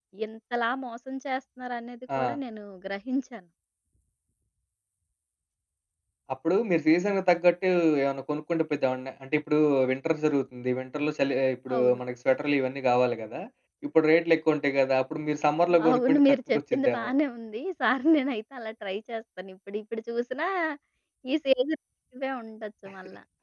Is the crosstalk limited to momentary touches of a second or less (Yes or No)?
No